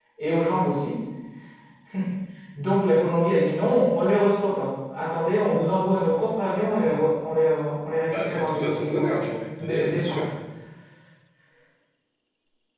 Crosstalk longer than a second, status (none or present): present